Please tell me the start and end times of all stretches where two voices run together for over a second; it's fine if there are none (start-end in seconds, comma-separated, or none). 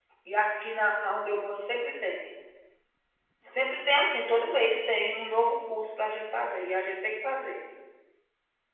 none